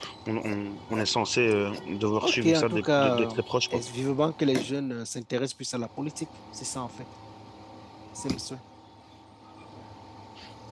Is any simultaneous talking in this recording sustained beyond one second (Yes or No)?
Yes